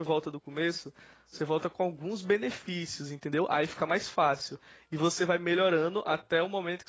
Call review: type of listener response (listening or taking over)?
listening